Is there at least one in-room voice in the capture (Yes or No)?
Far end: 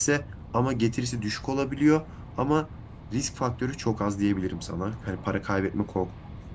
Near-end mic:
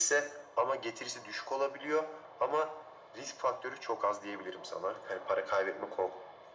No